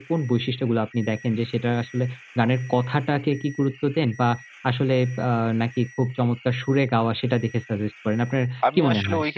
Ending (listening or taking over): taking over